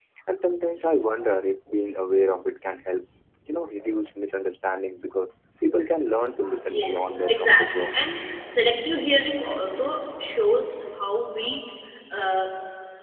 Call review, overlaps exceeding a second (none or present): present